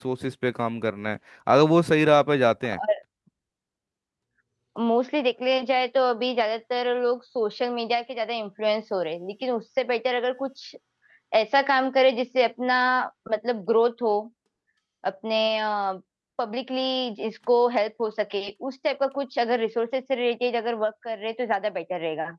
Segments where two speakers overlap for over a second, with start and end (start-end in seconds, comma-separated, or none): none